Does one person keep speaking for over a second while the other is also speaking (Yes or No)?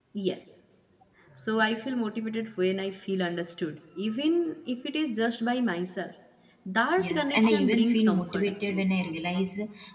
Yes